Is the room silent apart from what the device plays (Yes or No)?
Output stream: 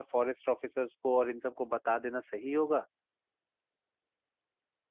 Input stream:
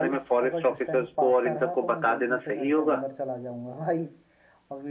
No